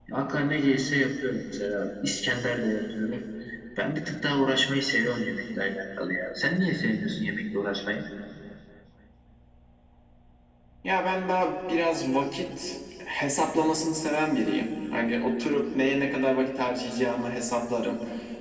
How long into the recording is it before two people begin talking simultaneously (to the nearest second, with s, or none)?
none